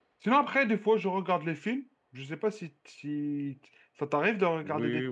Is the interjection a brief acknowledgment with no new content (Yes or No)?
No